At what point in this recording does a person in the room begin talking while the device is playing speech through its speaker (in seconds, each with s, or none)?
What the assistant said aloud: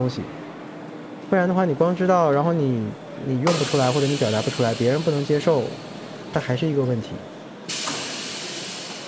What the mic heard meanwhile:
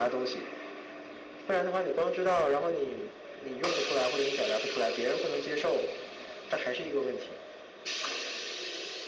none